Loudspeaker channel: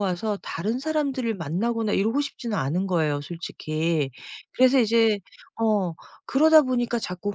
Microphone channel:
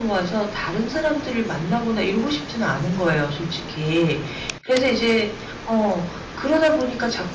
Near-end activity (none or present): none